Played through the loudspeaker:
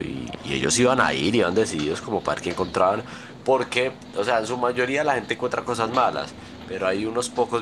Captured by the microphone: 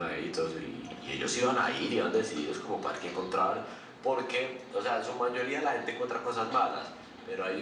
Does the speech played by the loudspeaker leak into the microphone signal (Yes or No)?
Yes